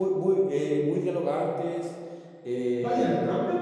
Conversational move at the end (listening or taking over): taking over